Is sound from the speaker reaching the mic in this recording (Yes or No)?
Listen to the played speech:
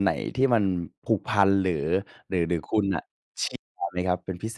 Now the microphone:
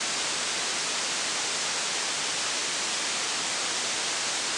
No